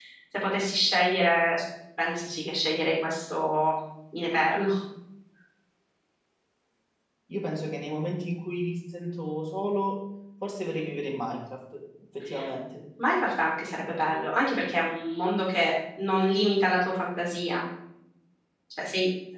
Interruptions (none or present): none